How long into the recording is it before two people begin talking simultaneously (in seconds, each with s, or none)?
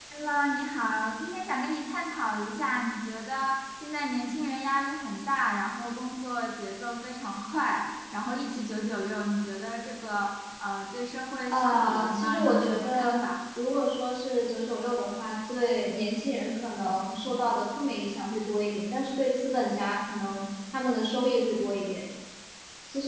11.5 s